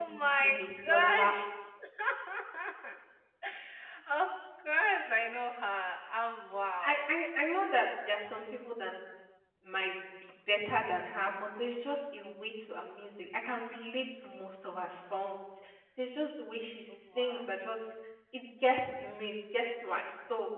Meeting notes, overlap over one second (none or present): present